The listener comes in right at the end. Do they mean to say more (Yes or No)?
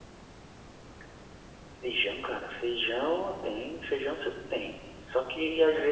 No